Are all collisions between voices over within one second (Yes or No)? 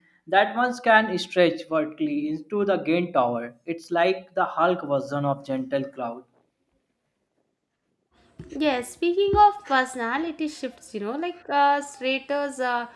Yes